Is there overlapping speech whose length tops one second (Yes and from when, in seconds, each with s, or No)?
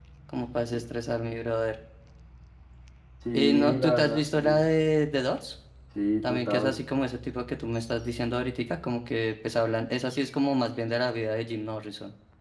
Yes, from 3.3 s